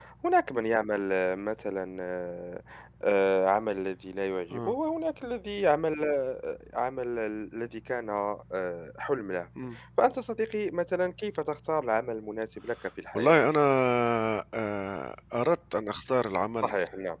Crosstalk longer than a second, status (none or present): none